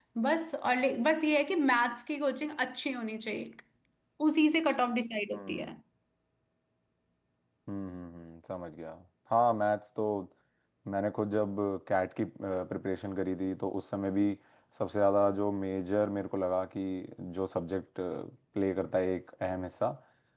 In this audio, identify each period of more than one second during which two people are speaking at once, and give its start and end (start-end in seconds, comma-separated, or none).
none